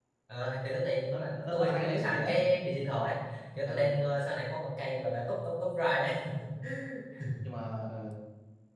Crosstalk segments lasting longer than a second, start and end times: 1.1-2.4

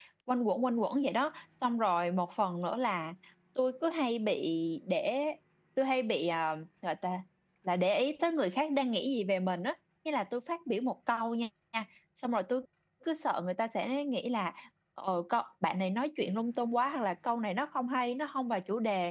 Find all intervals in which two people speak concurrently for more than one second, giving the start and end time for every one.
none

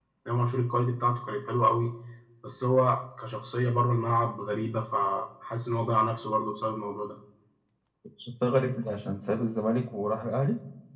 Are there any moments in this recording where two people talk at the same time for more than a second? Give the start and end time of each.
none

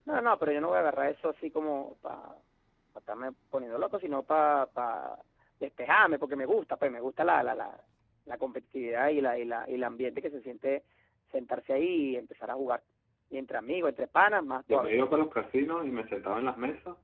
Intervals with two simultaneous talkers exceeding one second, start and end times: none

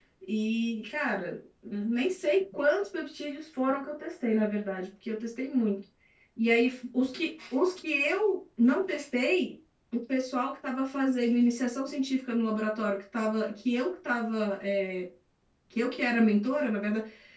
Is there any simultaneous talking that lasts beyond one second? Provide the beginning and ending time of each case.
none

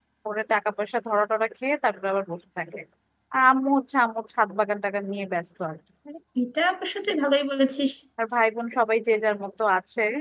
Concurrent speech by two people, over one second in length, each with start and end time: none

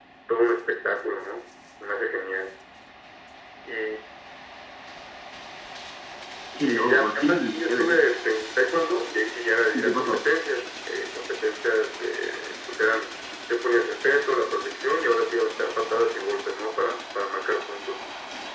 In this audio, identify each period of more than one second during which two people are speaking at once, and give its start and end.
6.7-8.1

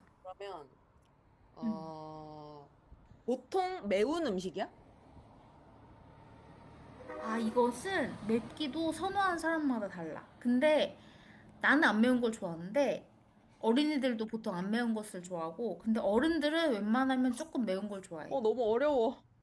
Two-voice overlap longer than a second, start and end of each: none

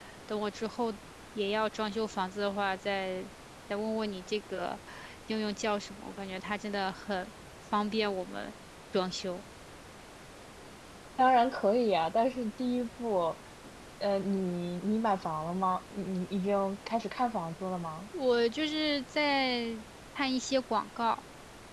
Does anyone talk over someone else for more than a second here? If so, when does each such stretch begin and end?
none

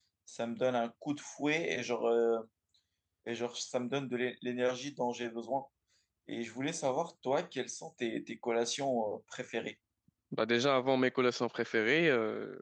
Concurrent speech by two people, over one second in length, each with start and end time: none

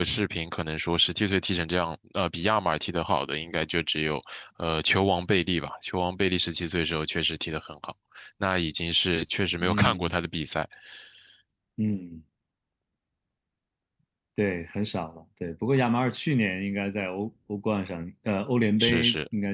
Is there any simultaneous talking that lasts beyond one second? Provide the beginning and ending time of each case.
none

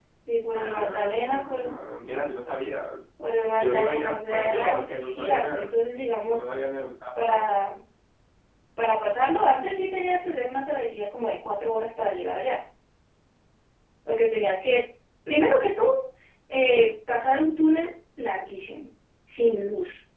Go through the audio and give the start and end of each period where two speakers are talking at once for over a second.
0.5-1.7, 3.5-5.7

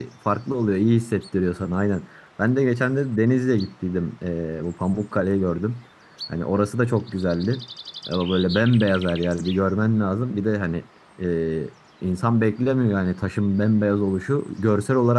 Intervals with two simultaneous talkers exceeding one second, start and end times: none

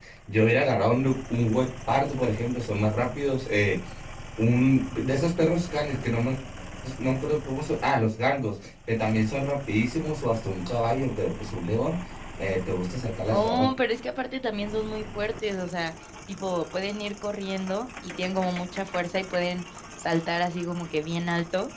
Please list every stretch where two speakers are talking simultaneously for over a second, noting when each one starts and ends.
none

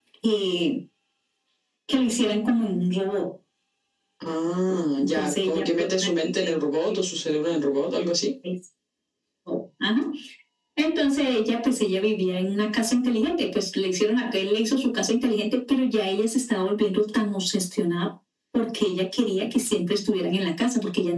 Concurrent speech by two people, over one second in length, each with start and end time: 5.0-6.6

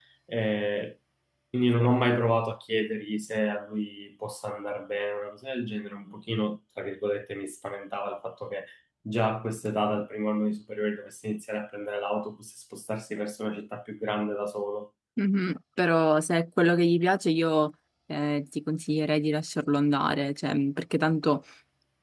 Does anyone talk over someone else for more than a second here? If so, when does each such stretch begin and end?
none

